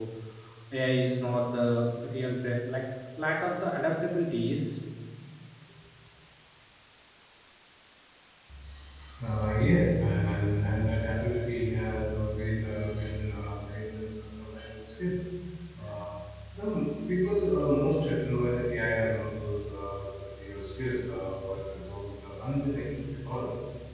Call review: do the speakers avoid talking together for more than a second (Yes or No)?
Yes